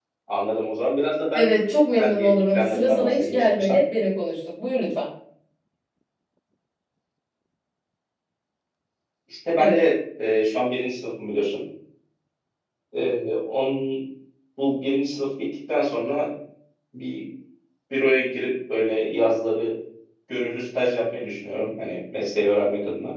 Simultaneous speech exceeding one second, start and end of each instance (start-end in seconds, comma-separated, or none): 2.0-3.8